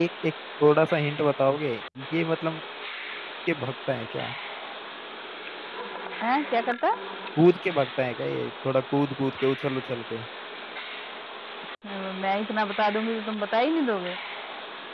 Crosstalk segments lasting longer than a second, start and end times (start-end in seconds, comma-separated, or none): none